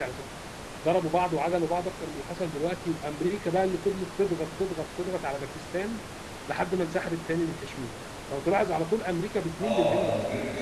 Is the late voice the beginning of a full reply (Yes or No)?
Yes